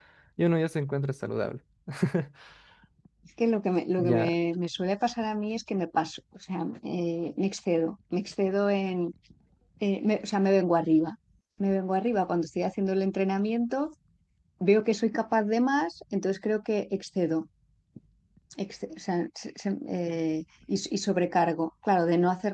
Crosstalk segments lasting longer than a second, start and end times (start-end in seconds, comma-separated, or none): none